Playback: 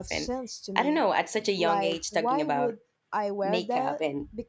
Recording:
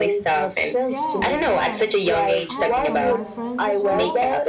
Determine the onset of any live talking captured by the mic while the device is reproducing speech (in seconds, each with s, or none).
0.9 s